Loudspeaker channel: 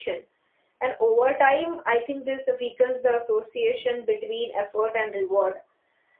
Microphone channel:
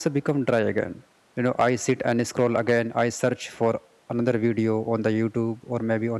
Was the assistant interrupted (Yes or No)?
Yes